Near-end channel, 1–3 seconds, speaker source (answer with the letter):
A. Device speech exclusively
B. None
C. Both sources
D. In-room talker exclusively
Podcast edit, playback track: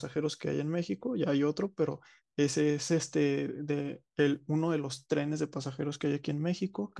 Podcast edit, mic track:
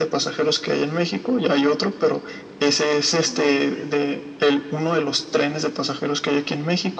A